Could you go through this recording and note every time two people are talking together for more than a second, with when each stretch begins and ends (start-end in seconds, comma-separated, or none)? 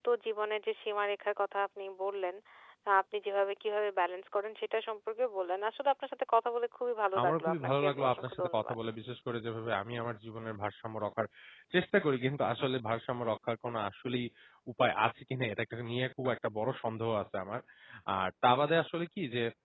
7.2-8.8